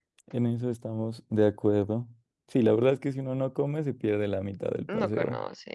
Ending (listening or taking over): taking over